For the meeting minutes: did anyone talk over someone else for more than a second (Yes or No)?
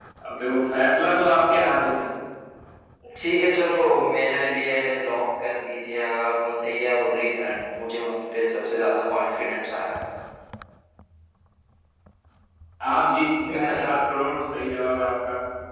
No